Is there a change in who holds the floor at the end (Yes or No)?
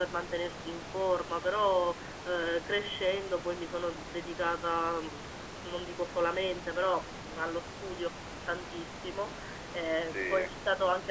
No